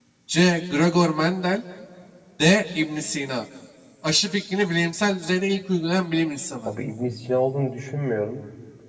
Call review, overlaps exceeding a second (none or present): none